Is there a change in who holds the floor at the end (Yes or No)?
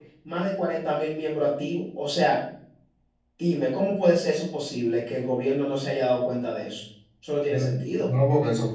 Yes